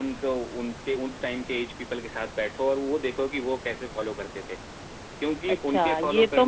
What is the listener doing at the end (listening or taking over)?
taking over